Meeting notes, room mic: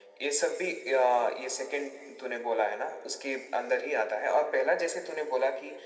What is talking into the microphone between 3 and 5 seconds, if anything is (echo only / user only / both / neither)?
echo only